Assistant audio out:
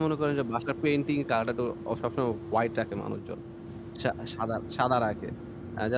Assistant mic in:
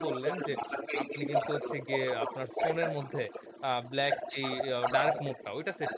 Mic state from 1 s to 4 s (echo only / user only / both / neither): both